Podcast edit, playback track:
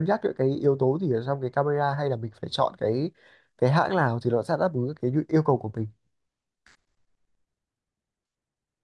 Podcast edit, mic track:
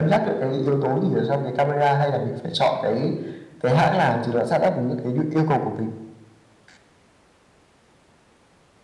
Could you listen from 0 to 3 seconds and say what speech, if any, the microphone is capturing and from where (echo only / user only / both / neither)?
echo only